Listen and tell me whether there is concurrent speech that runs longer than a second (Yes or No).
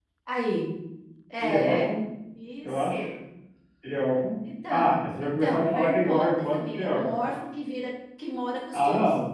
Yes